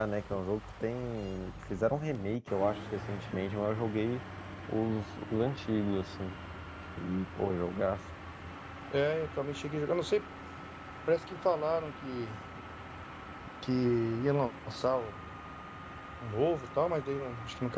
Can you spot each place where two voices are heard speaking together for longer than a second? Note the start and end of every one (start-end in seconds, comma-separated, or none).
none